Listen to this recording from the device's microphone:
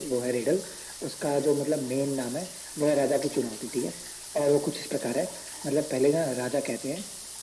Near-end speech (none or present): none